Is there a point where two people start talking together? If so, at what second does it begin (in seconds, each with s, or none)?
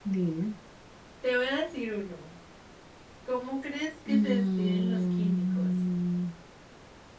4.1 s